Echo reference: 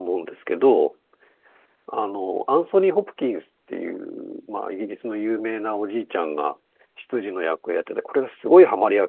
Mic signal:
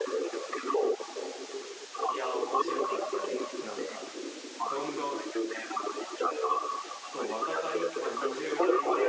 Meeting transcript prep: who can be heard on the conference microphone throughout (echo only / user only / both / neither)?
both